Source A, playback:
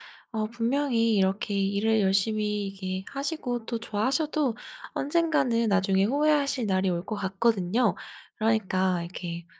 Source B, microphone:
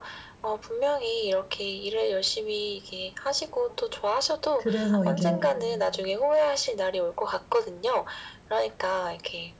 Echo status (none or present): present